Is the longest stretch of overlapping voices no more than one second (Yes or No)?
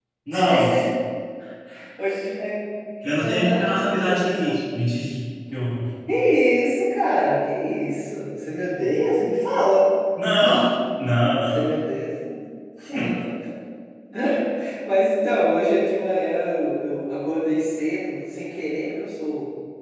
No